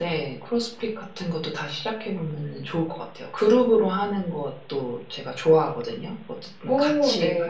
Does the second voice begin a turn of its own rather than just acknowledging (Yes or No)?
No